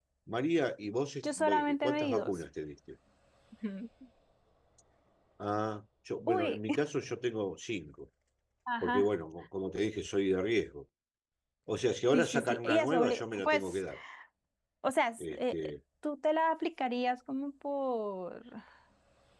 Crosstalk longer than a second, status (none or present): present